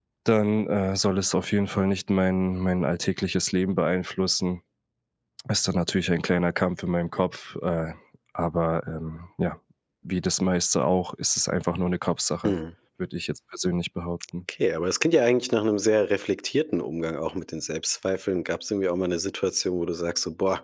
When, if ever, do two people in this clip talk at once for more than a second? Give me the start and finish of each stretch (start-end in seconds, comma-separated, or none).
none